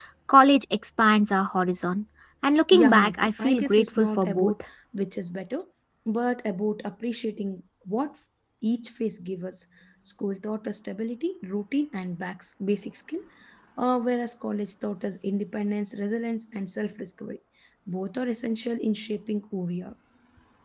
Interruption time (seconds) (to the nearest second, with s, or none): 3 s